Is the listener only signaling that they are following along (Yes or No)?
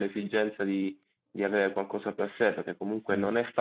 Yes